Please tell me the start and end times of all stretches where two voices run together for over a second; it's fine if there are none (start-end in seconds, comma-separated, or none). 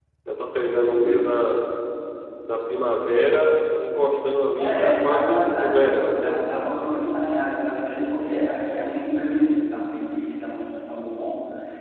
4.6-6.4